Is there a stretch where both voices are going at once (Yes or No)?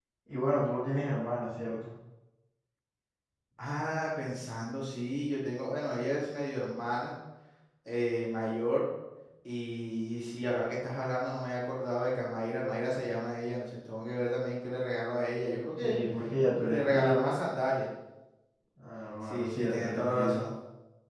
Yes